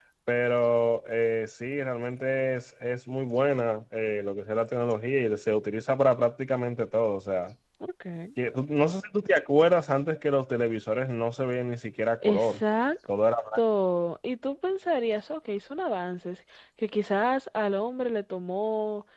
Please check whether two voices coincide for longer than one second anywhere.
No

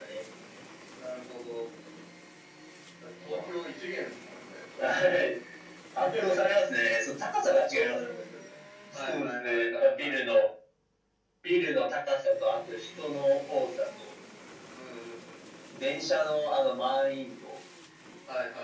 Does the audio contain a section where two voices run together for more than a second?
Yes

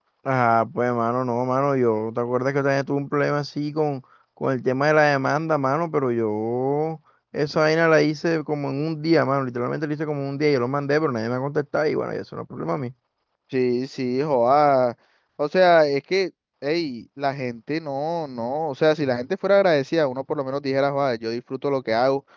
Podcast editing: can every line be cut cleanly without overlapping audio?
Yes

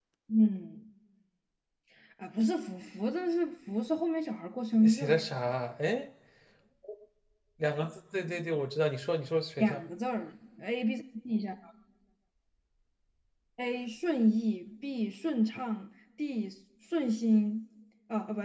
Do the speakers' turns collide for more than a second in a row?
No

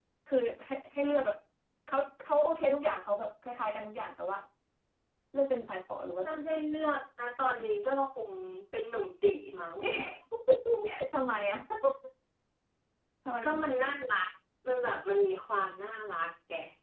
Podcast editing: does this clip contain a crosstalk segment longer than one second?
No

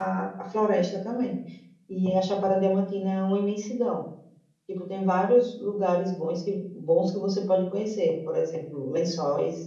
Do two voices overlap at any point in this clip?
No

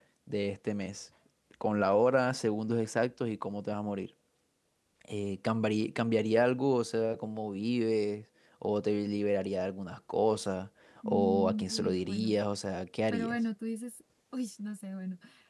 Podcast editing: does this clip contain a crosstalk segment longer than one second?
Yes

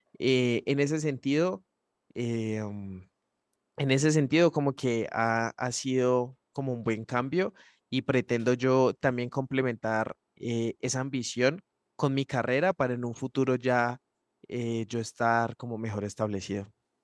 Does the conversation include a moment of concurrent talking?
No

